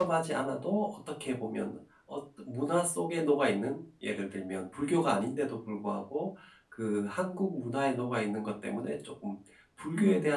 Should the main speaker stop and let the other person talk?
No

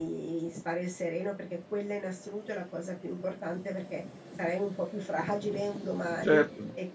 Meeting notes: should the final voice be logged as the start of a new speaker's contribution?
Yes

